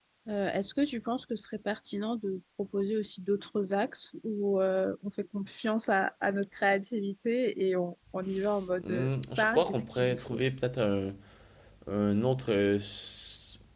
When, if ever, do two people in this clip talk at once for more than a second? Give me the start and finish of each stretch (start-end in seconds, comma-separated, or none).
8.8-10.4